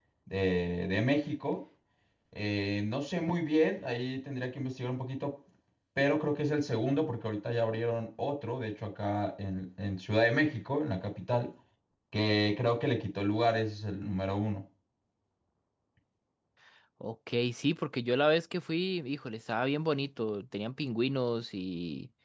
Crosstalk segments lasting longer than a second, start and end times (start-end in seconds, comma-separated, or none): none